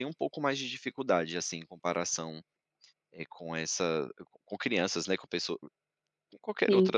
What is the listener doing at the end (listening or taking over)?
taking over